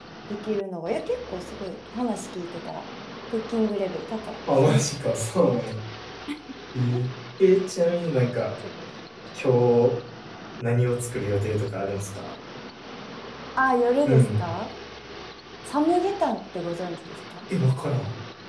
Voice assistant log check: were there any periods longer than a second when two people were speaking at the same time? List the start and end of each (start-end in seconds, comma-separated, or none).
none